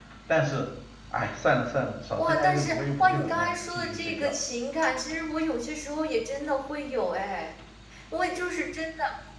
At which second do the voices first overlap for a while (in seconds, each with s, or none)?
2.2 s